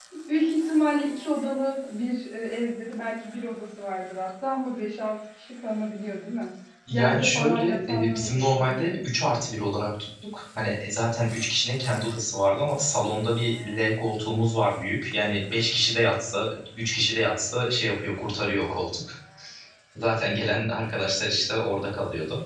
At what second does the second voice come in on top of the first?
6.9 s

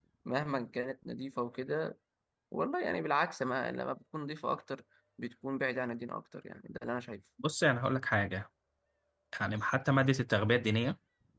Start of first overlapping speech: none

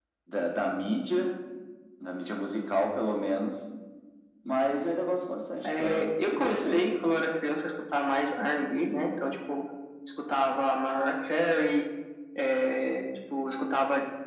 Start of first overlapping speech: 5.6 s

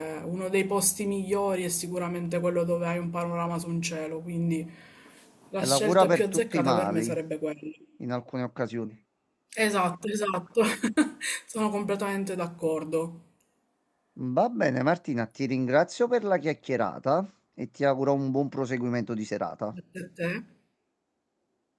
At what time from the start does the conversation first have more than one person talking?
5.6 s

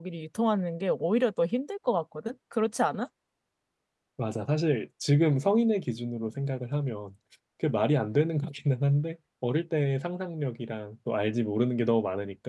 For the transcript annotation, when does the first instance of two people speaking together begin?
none

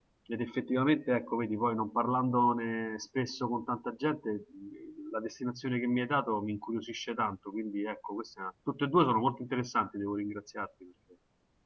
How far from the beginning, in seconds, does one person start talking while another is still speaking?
none

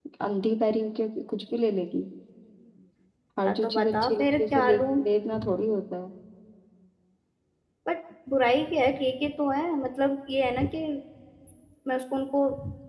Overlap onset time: 3.5 s

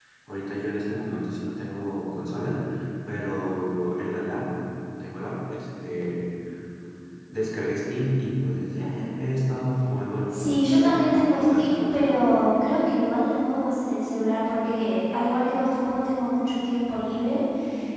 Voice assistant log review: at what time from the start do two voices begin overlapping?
10.3 s

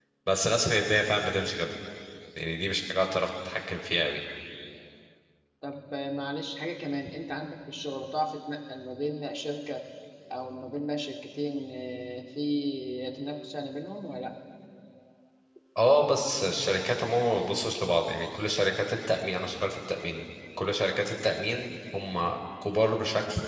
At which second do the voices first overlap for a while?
none

